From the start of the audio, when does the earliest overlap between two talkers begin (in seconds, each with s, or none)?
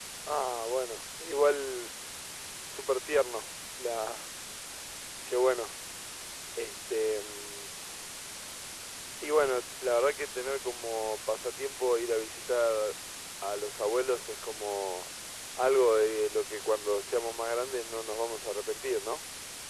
none